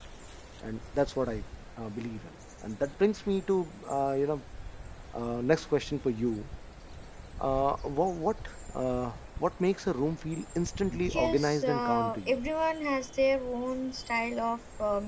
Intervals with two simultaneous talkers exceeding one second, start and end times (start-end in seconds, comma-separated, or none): 11.1-12.4